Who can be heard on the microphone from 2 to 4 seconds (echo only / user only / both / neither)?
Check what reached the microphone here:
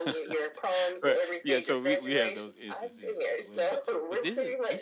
both